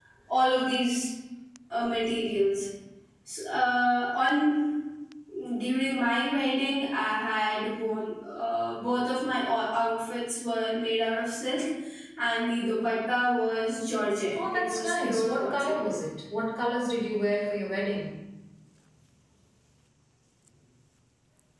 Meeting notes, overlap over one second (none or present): present